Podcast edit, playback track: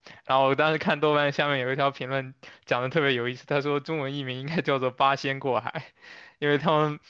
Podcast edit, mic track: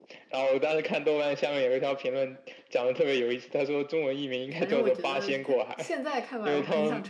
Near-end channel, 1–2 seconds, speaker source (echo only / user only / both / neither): echo only